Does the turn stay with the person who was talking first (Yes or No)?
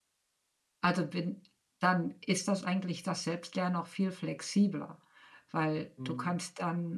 Yes